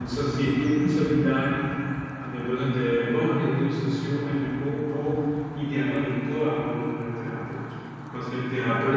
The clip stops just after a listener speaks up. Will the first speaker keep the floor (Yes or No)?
Yes